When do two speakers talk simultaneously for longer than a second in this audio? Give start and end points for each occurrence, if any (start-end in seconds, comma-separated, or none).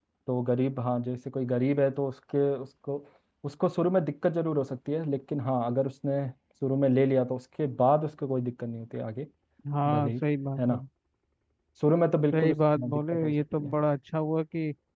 12.3-13.7